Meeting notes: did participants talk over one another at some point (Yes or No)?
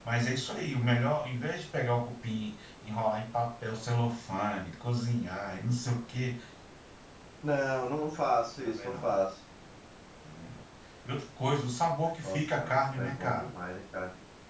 Yes